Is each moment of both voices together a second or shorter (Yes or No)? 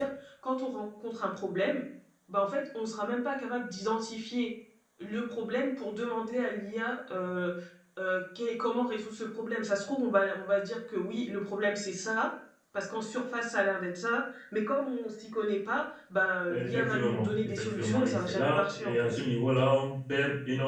No